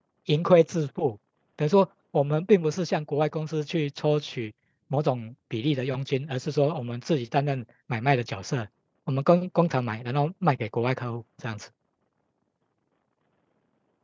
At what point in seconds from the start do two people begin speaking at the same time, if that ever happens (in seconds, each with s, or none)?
none